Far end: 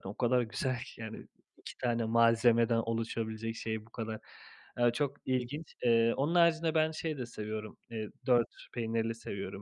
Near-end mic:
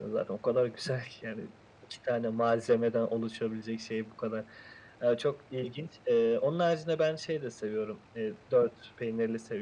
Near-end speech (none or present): none